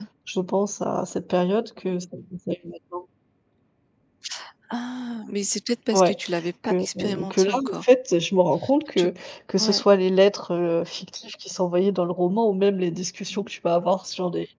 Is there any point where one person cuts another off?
Yes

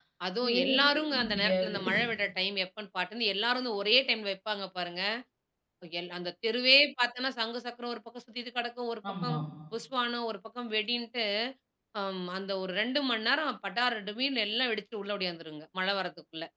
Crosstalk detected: Yes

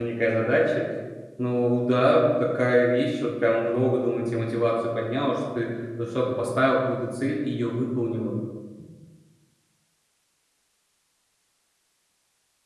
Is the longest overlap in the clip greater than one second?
No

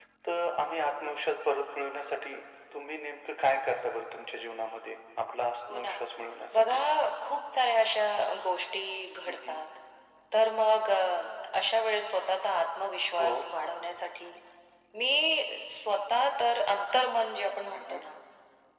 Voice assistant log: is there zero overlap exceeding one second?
Yes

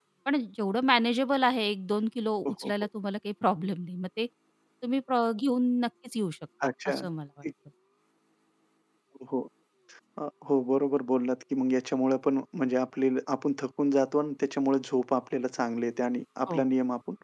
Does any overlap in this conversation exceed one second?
No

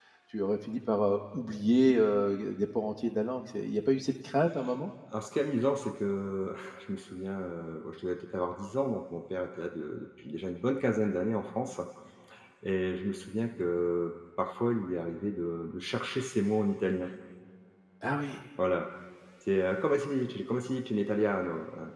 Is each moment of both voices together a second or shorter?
Yes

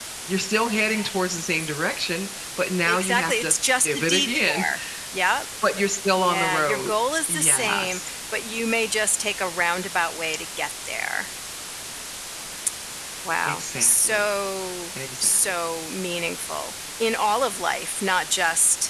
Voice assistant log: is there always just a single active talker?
No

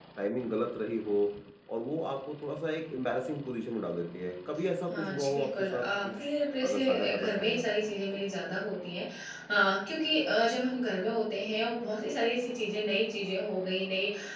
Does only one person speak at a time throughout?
No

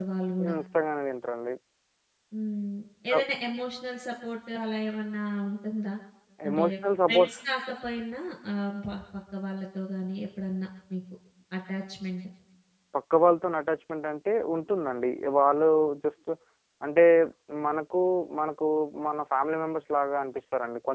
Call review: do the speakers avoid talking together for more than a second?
Yes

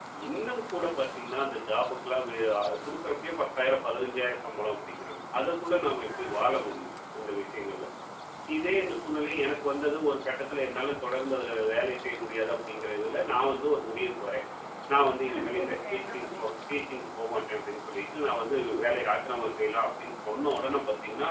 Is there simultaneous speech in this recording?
Yes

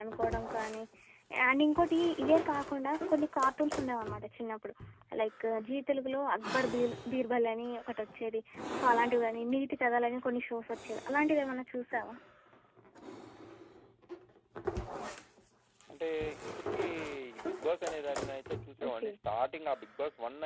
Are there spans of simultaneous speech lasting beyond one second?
No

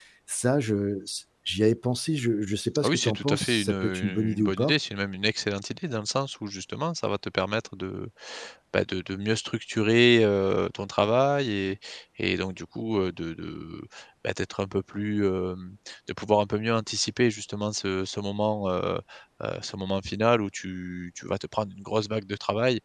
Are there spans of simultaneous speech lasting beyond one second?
Yes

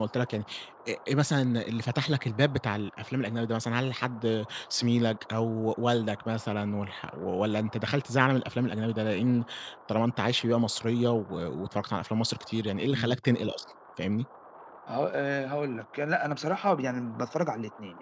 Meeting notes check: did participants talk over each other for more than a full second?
No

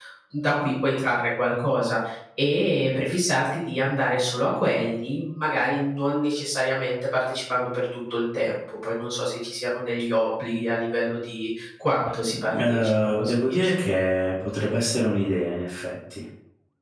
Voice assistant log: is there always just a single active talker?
No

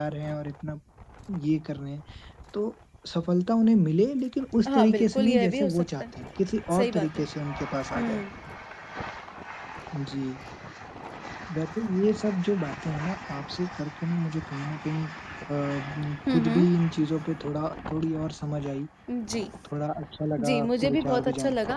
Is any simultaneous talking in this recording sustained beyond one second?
Yes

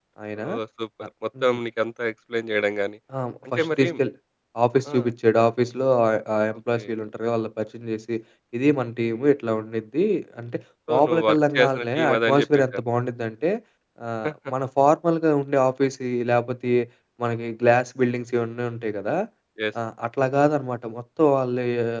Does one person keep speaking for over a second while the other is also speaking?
Yes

